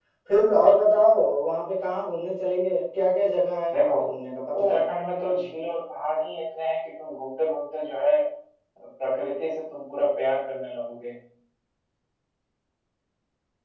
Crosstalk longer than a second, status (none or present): none